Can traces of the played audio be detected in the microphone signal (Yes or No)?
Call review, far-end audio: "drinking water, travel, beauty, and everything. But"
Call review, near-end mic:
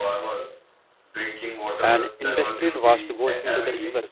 Yes